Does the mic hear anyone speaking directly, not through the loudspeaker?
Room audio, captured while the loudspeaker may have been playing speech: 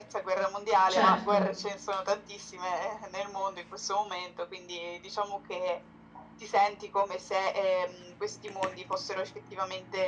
Yes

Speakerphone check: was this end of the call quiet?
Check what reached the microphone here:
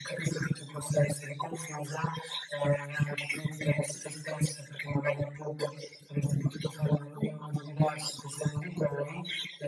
Yes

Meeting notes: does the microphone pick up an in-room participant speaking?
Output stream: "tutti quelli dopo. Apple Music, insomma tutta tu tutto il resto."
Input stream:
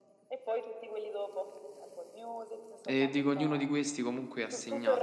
Yes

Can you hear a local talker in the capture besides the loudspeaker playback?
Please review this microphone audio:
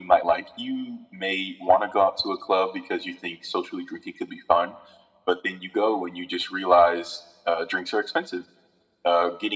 No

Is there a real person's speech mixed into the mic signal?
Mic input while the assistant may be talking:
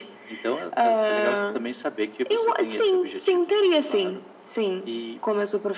No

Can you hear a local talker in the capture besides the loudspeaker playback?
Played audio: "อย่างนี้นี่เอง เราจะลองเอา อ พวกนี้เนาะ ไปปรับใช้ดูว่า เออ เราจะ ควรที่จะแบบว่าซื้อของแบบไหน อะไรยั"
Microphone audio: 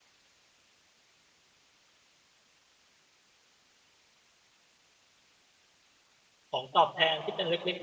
Yes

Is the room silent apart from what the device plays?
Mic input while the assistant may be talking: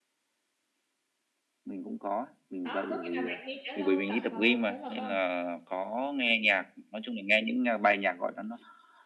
No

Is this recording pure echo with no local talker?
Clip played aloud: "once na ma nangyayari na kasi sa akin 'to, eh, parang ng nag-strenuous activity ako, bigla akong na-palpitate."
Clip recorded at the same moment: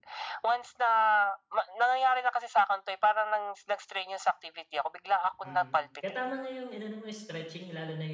No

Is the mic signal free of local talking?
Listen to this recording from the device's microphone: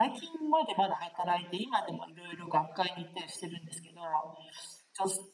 Yes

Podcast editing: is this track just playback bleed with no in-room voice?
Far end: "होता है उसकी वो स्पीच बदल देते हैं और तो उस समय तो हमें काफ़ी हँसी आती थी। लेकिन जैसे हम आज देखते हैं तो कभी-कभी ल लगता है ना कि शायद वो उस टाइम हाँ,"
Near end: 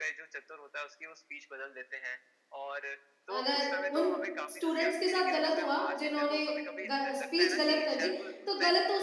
No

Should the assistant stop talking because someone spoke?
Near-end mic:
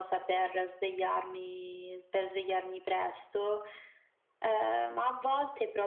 No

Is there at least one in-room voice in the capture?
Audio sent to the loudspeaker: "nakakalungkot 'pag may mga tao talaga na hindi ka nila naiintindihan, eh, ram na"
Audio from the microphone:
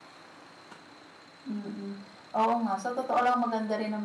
Yes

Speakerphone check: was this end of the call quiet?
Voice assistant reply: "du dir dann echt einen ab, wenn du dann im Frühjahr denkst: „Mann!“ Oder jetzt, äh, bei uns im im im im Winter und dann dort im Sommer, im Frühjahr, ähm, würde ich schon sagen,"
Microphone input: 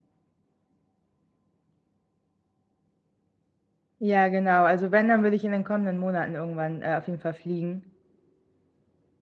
No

